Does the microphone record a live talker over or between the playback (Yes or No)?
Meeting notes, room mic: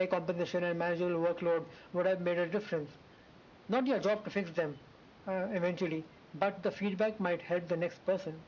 No